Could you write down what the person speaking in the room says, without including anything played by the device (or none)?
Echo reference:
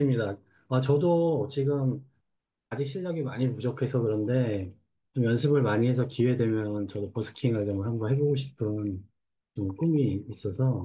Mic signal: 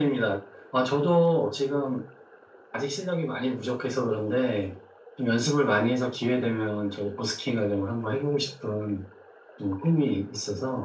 none